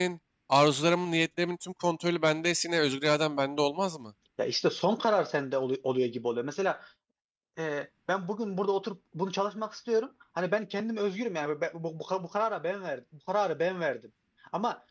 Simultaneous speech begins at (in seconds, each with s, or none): none